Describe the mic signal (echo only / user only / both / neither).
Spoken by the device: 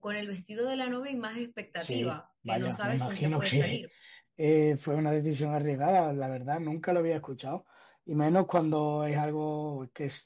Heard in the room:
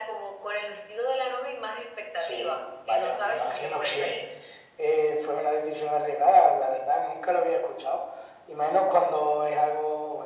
echo only